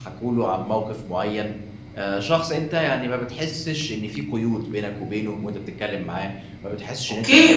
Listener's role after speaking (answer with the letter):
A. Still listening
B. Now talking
B